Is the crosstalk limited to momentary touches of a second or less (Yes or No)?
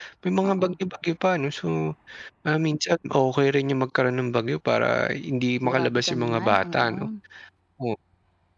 No